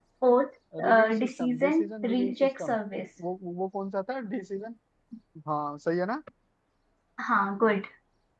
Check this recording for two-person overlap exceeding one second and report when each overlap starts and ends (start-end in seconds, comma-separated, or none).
0.8-2.8